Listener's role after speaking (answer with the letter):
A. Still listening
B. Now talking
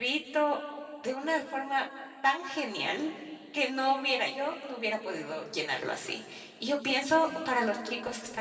A